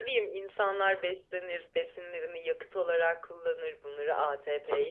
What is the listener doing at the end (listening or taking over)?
listening